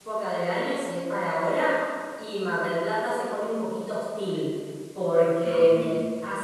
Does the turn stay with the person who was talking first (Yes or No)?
Yes